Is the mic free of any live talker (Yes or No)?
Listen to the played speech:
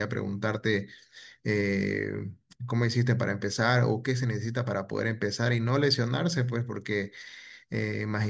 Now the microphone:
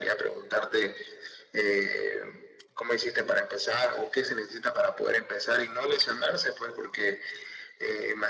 Yes